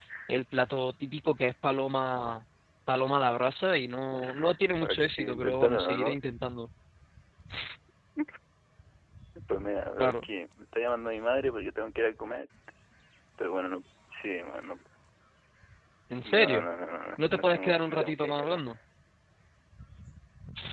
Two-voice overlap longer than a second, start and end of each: 4.8-6.2, 17.3-18.6

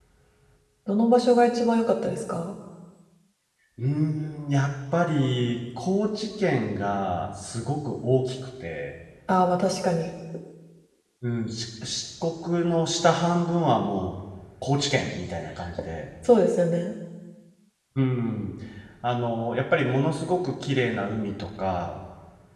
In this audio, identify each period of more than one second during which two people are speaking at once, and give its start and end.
none

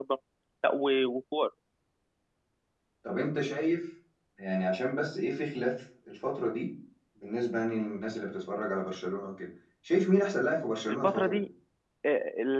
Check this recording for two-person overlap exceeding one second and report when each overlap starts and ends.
none

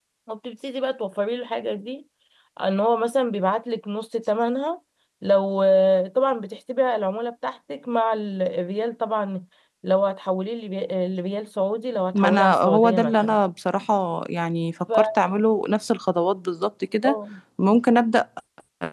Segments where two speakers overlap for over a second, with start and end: 12.1-13.4

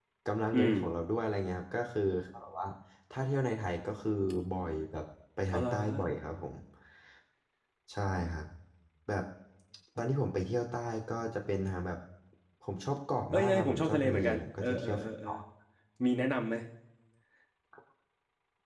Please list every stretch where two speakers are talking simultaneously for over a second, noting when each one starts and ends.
13.3-15.3

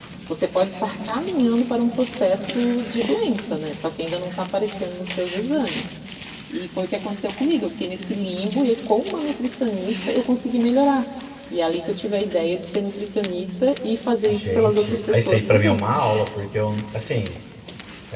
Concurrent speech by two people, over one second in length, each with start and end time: 14.3-15.8

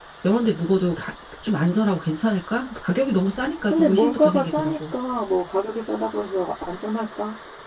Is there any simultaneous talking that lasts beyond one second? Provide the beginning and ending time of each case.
3.7-4.9

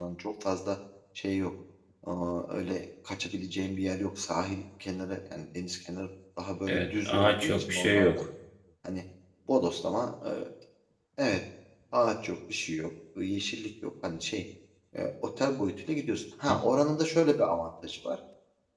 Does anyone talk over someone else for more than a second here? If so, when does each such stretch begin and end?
6.7-8.1

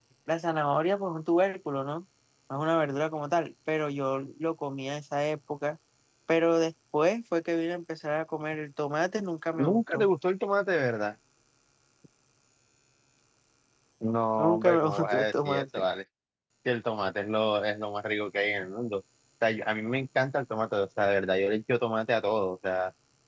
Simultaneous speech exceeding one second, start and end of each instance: 14.4-15.8

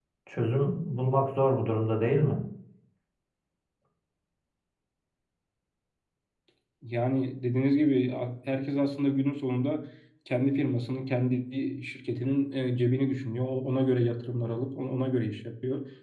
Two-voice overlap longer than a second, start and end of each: none

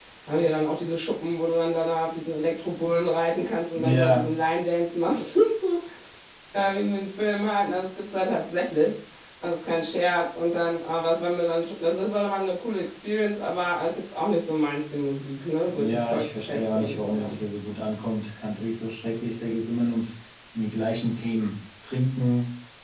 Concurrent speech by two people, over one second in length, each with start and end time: 15.8-17.3

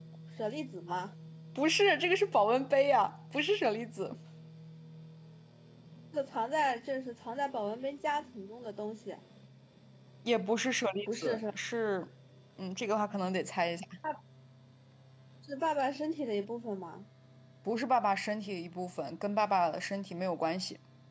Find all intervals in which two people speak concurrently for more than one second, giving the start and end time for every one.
none

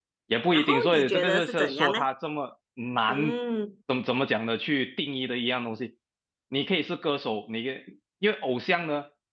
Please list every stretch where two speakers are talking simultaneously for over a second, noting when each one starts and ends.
0.5-2.0

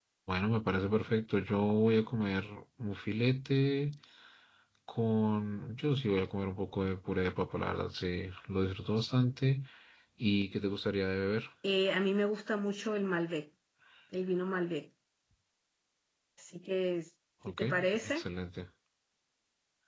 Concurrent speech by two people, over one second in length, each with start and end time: none

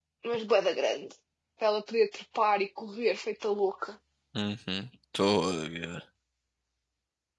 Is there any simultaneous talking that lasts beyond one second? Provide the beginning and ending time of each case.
none

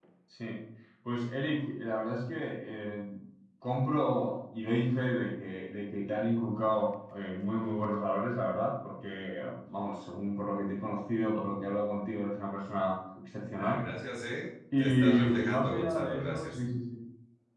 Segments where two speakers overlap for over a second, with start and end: 14.8-16.6

